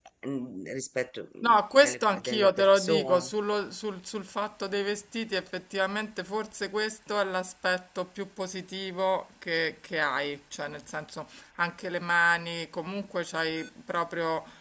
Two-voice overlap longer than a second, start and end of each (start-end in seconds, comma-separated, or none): 1.4-3.3